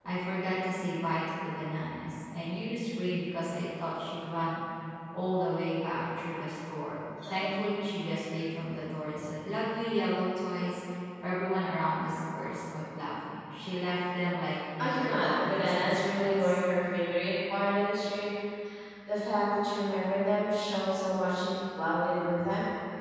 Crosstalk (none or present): present